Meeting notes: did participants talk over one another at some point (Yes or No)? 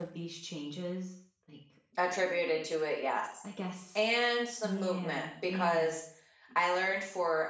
Yes